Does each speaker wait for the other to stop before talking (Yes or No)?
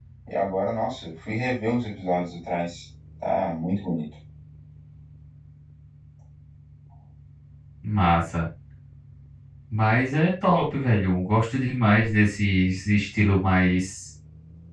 Yes